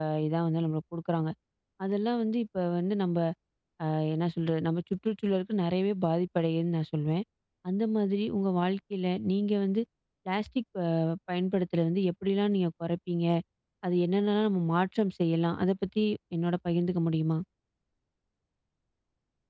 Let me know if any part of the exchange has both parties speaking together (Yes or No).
No